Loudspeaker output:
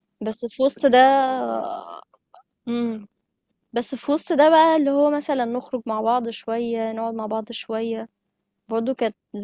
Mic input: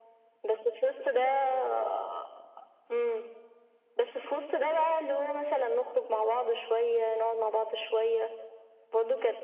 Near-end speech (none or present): none